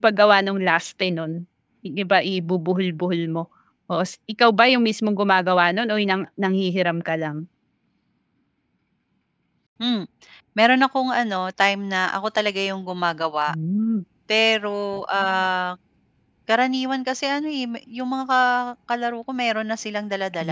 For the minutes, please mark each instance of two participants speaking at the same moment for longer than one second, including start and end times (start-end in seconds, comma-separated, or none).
none